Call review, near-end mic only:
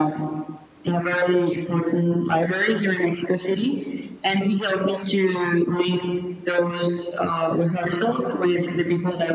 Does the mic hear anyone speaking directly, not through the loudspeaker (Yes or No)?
No